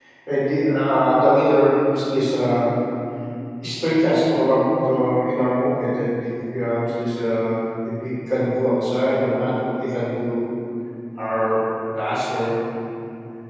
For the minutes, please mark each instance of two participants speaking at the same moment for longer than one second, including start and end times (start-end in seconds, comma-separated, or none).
none